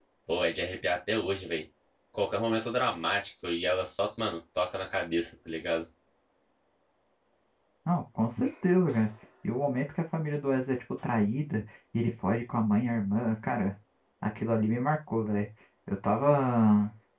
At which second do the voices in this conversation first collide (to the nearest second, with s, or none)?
none